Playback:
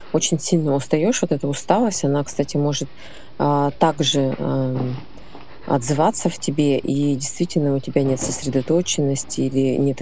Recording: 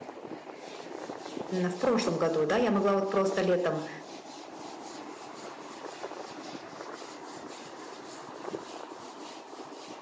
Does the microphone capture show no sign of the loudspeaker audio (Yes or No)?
Yes